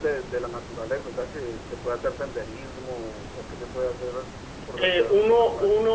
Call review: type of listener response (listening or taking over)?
taking over